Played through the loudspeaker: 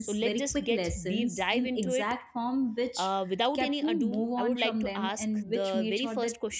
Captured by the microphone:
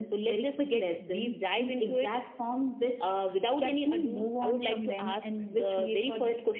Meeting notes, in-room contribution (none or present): none